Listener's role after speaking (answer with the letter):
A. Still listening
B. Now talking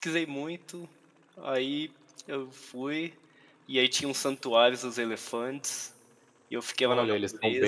B